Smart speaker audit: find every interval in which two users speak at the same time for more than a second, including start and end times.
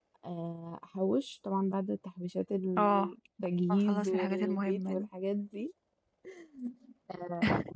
3.7-5.0

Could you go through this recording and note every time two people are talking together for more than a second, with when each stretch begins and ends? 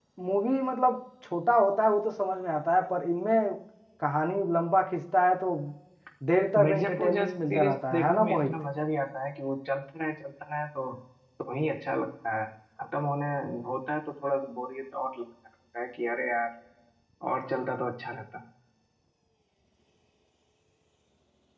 6.6-8.5

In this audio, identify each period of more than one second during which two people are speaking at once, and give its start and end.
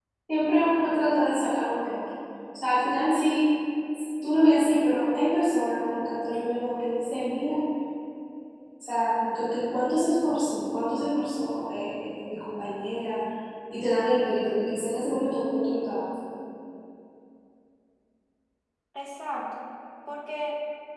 none

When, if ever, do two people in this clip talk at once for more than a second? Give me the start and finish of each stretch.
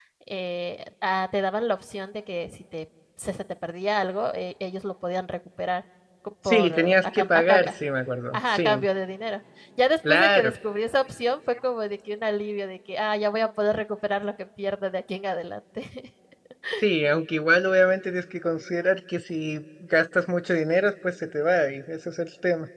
6.5-7.7

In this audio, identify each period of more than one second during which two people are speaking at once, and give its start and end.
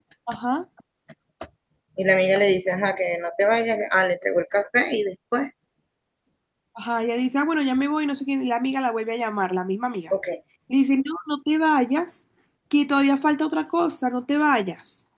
none

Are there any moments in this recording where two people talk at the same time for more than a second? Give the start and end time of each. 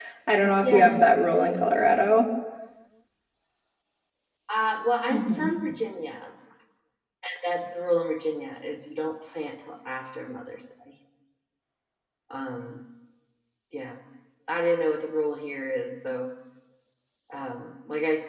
none

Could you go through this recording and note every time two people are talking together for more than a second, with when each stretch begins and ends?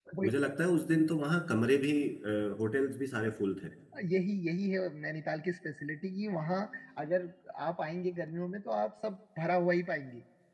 none

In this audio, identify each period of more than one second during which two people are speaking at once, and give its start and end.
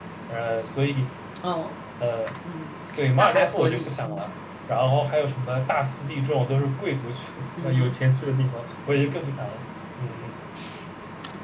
3.0-4.3

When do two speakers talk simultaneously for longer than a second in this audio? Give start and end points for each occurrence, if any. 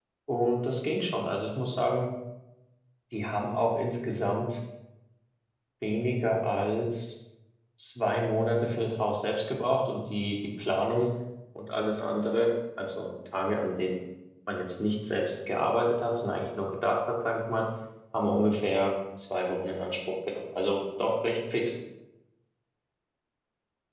none

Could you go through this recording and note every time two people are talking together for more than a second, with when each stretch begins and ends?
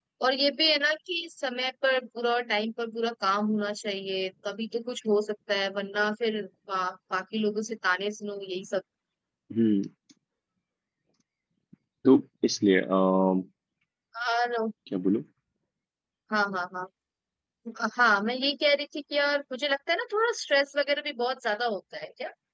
none

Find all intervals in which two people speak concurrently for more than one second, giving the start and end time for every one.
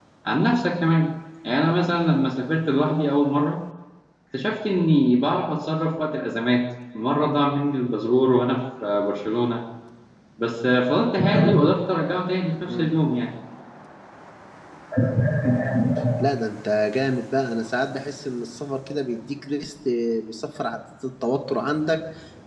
none

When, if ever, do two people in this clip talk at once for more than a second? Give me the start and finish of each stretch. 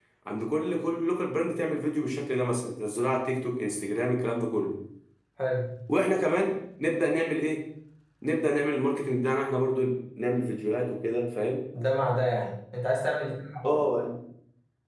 none

